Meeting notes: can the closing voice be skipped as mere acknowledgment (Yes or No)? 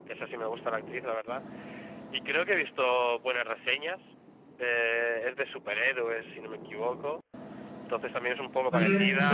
Yes